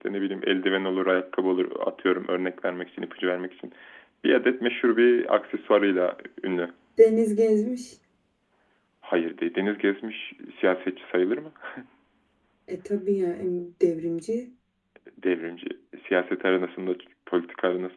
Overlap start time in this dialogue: none

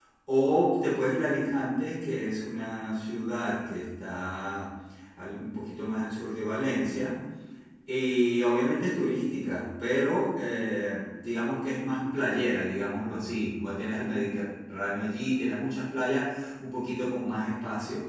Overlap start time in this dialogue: none

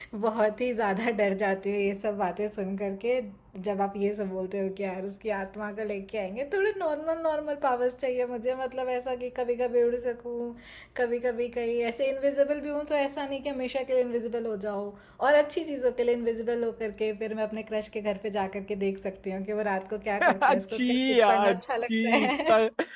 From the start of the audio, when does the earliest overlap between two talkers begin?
20.2 s

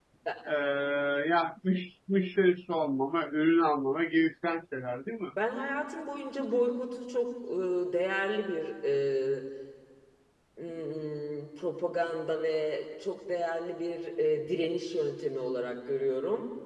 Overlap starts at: none

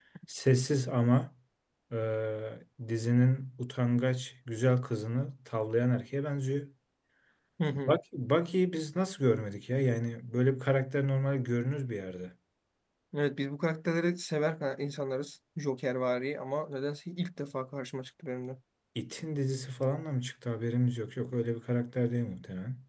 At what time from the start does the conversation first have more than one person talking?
none

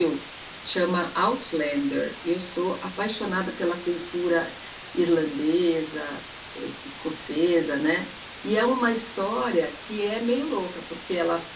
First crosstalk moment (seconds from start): none

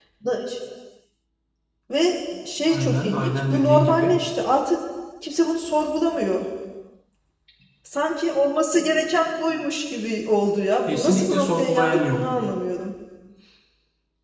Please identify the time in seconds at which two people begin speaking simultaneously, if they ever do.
2.7 s

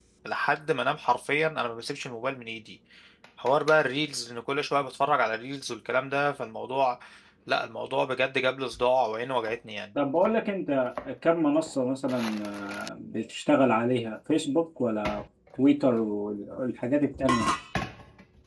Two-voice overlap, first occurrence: none

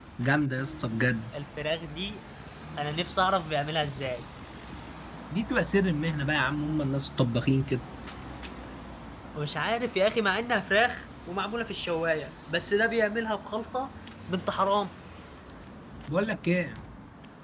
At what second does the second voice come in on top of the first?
none

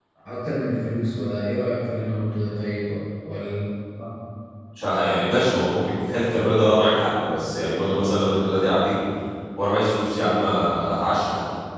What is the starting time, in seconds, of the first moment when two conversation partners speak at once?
none

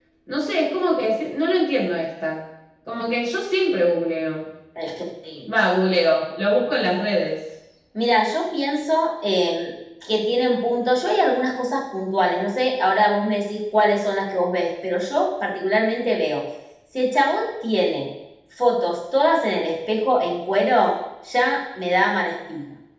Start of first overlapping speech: none

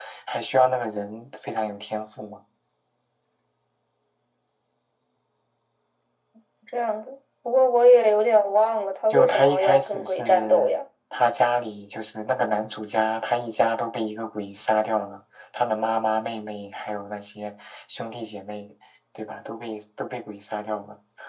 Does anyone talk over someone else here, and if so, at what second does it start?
9.1 s

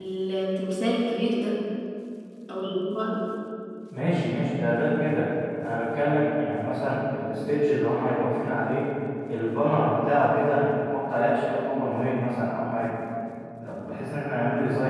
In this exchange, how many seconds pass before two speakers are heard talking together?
none

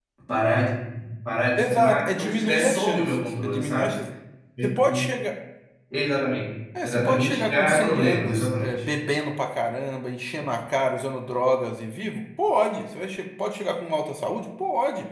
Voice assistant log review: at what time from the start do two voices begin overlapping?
1.6 s

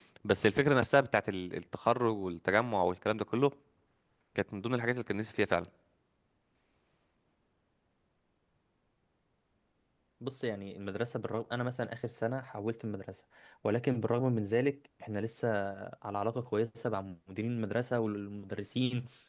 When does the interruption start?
none

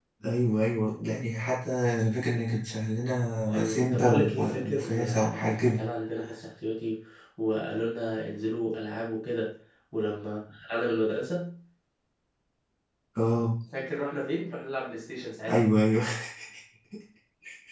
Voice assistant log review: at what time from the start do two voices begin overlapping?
3.5 s

